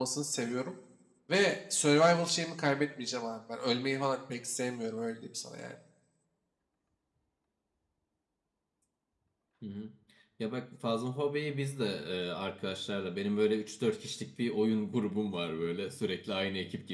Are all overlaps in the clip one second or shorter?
Yes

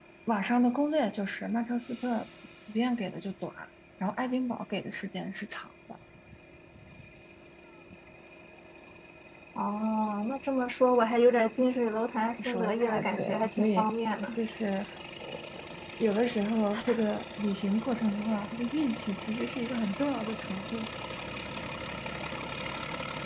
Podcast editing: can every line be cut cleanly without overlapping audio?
No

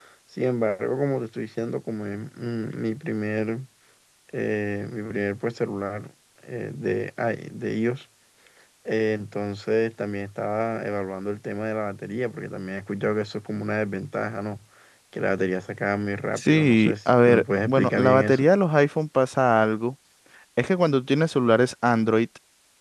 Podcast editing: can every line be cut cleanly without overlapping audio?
No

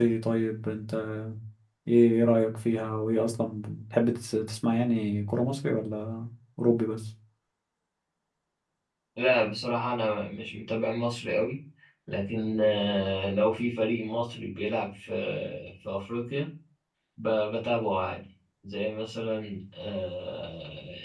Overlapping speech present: No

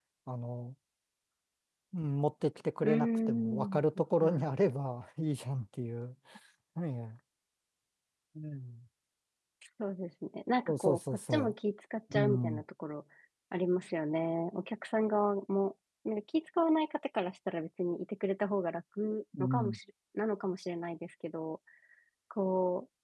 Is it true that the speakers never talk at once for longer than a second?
No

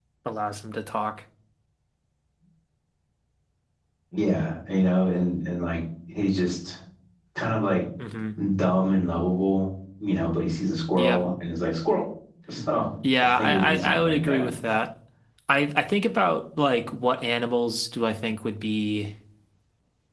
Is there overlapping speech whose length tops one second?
Yes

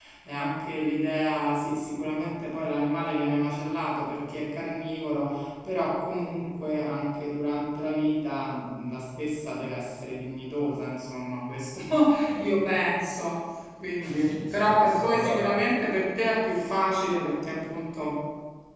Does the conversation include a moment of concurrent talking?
Yes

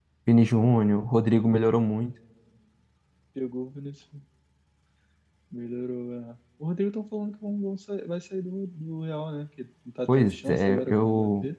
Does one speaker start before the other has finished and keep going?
Yes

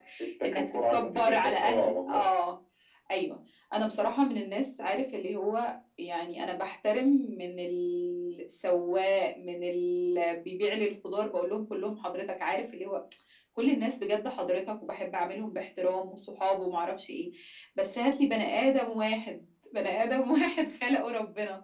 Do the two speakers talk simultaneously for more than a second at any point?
Yes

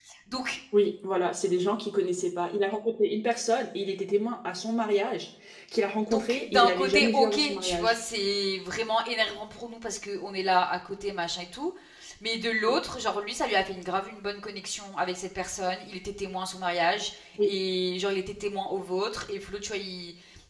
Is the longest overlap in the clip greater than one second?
Yes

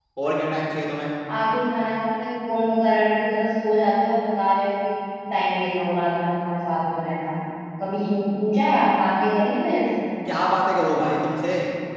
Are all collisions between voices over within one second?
Yes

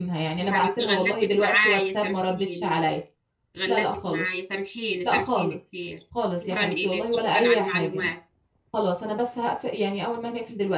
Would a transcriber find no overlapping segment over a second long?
No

